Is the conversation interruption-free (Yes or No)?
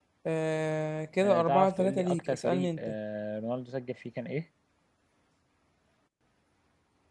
No